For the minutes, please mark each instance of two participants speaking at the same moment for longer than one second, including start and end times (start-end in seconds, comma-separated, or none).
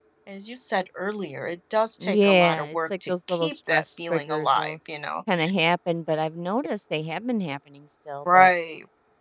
2.0-4.8